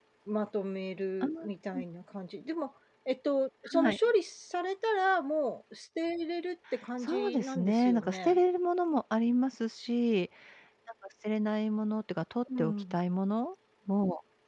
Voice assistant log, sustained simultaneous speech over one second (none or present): present